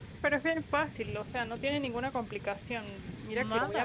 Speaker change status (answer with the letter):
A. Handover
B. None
B